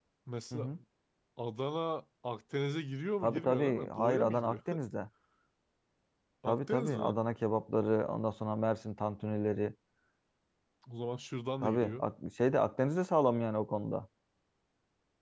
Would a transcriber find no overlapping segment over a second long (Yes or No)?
No